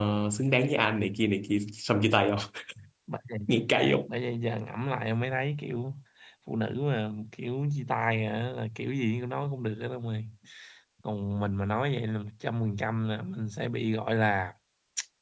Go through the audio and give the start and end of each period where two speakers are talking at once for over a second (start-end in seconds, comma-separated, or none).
none